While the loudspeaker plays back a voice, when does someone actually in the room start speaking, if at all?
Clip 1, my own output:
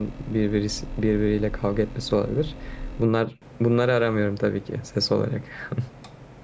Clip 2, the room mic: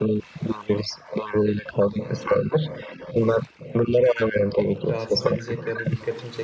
4.9 s

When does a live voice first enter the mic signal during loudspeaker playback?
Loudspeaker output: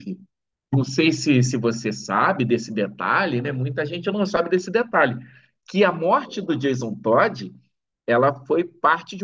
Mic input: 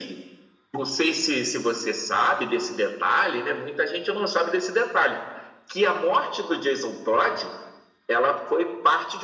none

